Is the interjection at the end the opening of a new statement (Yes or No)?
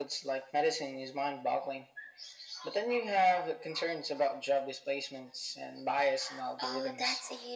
Yes